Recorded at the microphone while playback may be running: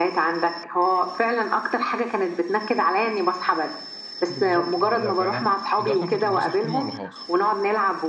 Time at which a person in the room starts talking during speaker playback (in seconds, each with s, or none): 4.3 s